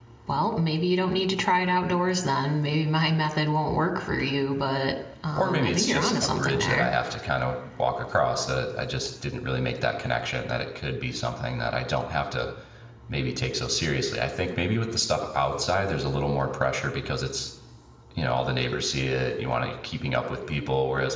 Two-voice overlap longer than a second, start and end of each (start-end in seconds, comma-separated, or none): 5.4-6.9